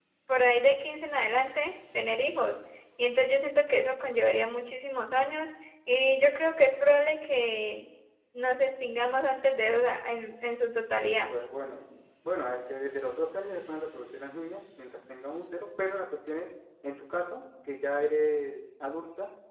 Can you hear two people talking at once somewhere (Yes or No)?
No